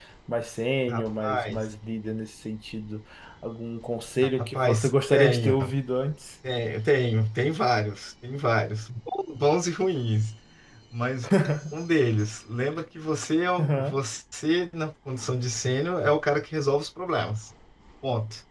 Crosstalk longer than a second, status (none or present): present